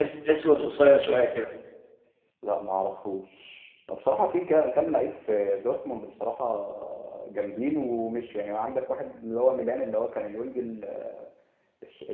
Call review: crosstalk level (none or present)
none